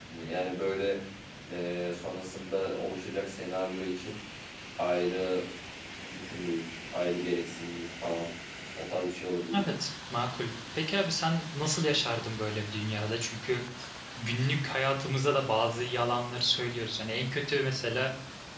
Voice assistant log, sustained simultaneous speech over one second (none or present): none